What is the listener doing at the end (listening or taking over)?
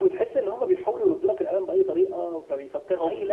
taking over